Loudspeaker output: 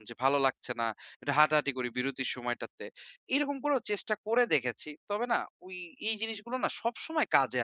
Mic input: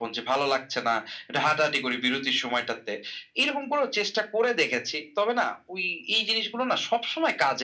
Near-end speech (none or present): none